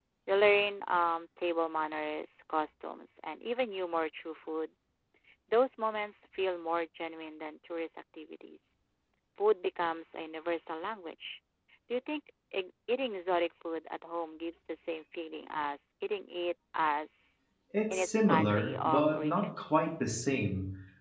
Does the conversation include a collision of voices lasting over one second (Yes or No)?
Yes